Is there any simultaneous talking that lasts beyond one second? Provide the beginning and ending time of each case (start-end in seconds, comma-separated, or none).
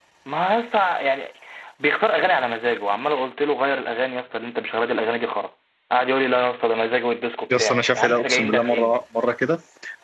7.5-9.0